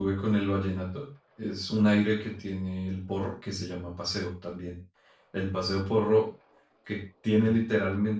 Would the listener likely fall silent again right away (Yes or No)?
Yes